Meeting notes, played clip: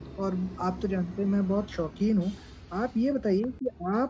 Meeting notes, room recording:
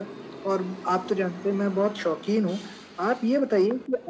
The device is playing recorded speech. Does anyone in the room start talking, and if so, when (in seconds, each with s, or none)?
none